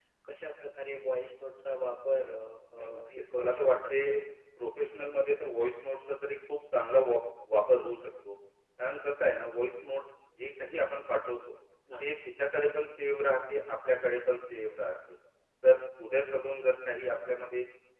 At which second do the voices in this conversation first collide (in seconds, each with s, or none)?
2.8 s